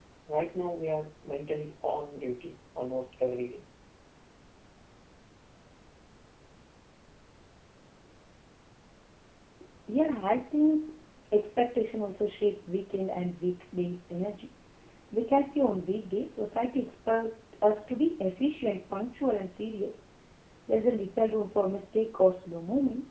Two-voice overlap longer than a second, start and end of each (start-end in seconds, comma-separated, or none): none